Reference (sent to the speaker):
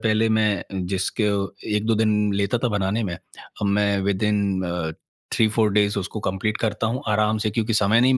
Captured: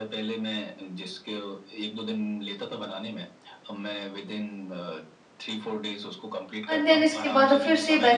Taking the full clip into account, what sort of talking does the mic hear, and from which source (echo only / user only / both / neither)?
both